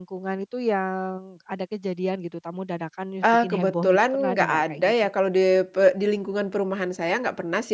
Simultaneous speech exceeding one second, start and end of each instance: 3.2-4.9

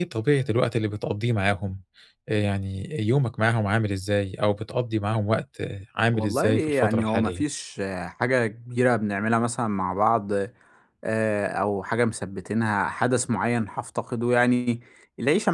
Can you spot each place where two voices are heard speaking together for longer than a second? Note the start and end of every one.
6.1-7.4

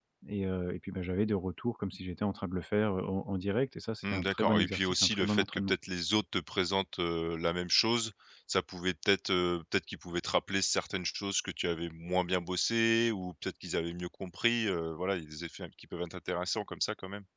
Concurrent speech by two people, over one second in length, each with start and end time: 4.1-5.7

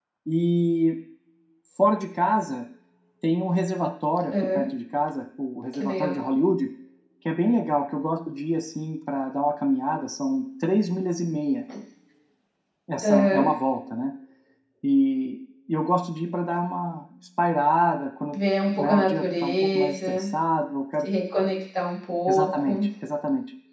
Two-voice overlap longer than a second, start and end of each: 18.8-20.3

